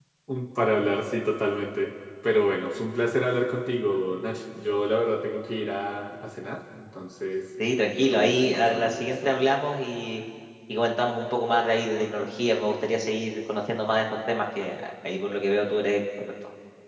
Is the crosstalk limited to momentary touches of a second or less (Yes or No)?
No